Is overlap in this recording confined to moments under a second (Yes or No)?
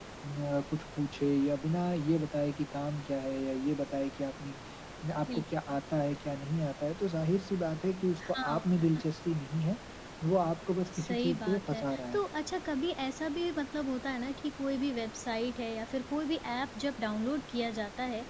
No